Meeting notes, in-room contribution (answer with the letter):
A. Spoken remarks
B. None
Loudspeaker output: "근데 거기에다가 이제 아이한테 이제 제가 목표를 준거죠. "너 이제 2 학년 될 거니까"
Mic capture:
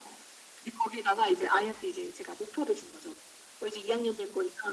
B